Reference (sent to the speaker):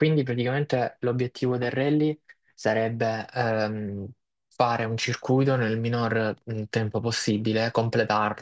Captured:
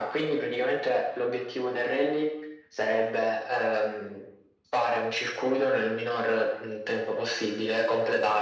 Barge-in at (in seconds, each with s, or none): none